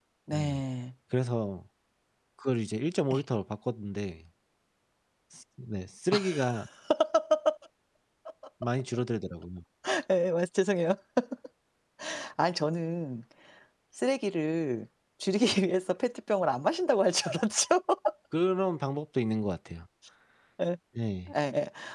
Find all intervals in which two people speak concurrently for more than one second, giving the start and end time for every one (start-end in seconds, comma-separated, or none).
none